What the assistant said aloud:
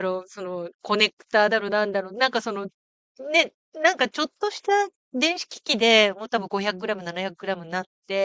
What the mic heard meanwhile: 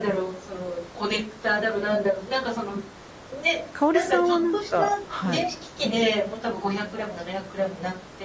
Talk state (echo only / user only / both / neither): both